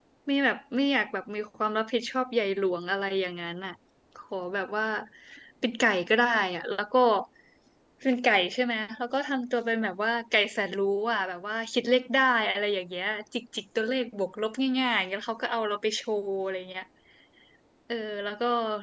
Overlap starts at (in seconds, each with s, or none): none